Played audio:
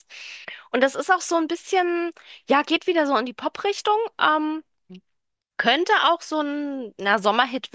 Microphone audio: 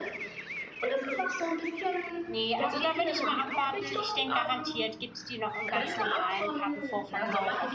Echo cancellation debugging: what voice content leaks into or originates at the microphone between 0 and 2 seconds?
echo only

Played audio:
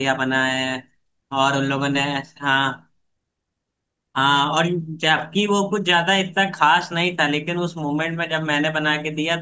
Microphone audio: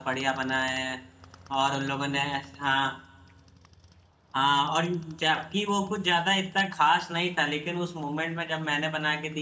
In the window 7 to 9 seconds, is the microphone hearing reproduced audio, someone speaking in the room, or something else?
echo only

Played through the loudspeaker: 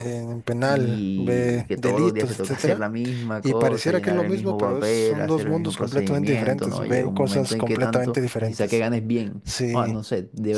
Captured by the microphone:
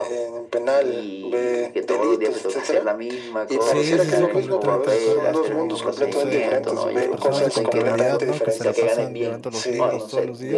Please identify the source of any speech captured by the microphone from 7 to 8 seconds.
both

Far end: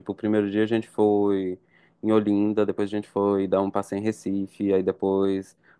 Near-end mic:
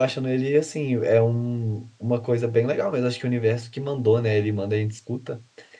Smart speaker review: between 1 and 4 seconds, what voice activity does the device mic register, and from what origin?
user only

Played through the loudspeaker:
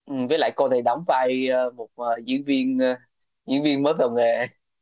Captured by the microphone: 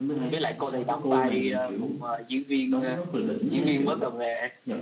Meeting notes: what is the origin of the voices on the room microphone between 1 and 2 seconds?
both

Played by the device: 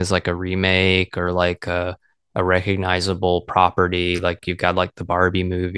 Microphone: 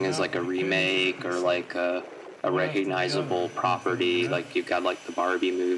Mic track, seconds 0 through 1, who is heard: both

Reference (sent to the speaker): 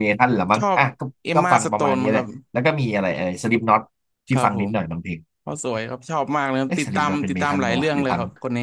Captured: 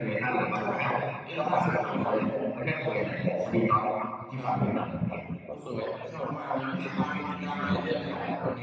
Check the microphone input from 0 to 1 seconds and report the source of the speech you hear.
echo only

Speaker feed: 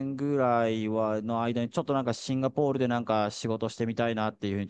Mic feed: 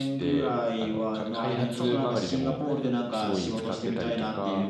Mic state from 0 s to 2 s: both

